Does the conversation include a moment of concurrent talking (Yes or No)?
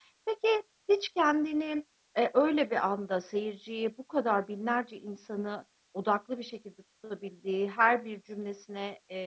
No